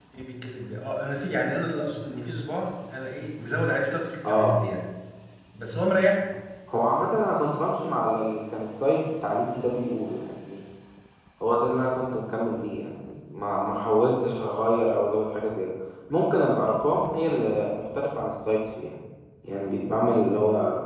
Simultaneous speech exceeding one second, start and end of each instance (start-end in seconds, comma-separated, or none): none